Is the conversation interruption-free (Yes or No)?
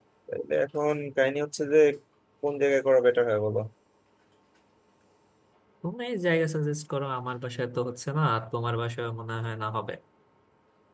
Yes